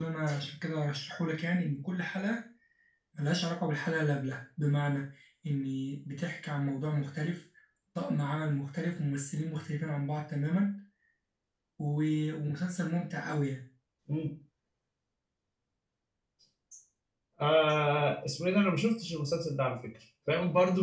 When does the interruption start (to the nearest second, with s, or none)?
none